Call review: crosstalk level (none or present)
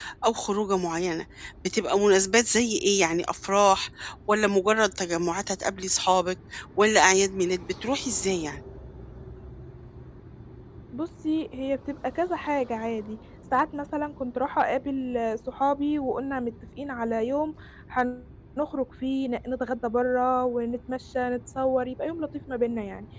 none